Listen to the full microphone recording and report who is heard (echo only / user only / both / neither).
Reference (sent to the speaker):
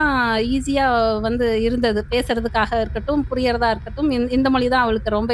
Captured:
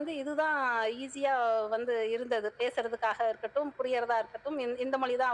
echo only